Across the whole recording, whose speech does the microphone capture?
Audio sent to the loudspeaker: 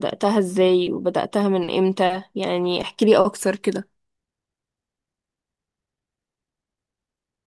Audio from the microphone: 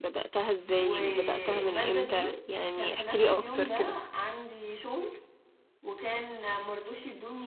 both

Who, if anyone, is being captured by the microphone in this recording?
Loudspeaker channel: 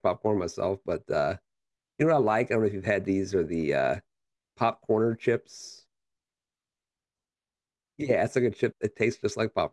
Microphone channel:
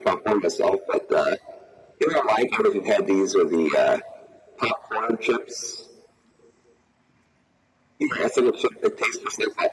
echo only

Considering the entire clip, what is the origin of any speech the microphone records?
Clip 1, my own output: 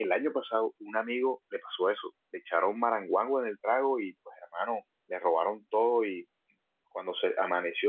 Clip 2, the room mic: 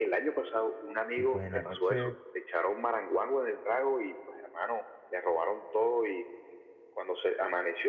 both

